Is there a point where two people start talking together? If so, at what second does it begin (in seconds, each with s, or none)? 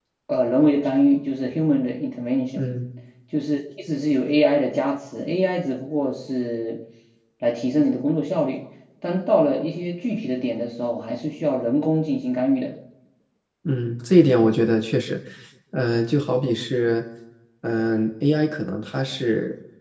none